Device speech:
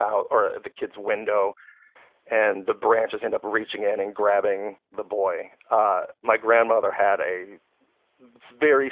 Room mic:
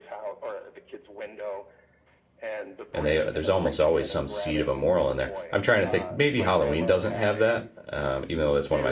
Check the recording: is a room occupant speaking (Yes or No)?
Yes